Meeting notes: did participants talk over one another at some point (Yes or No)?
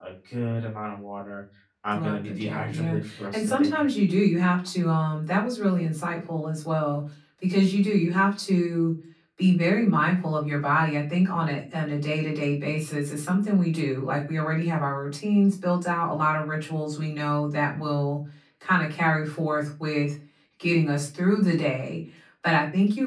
Yes